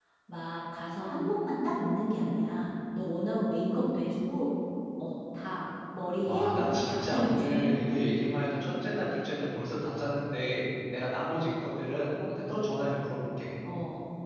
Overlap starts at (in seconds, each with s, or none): 6.2 s